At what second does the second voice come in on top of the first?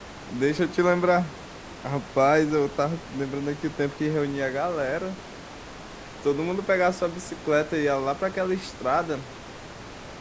none

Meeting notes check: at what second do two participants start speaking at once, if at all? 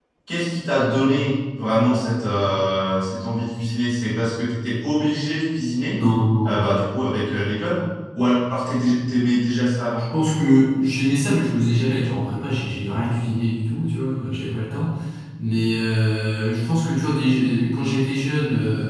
none

